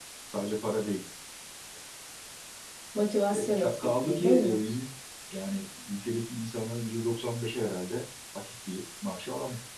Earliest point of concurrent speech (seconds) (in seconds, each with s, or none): 3.3 s